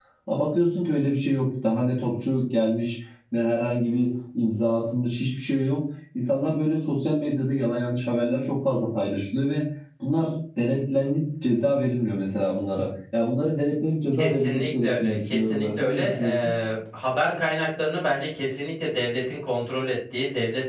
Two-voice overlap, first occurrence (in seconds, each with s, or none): 14.1 s